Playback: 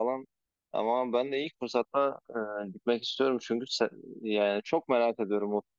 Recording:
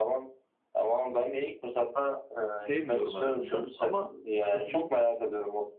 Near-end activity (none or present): present